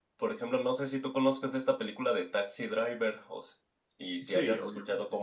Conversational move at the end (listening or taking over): listening